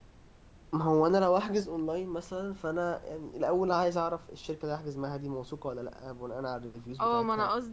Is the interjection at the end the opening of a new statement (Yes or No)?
Yes